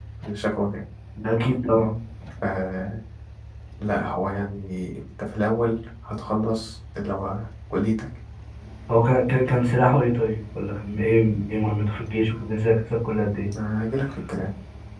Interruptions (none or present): none